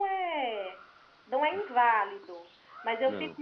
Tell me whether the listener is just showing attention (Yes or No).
Yes